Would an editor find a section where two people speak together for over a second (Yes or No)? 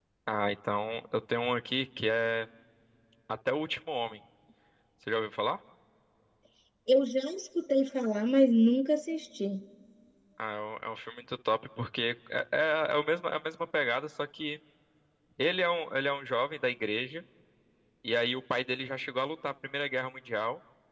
No